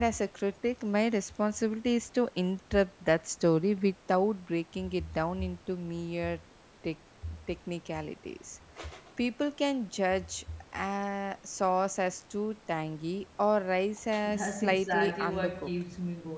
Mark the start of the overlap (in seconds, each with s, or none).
14.2 s